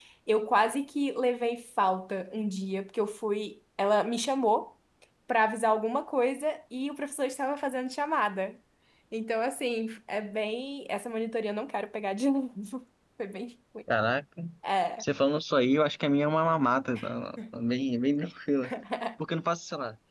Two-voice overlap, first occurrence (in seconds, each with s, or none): none